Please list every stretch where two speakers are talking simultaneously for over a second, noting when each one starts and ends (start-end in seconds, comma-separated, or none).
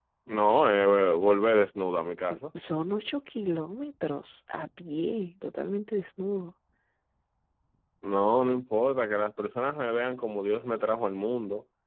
none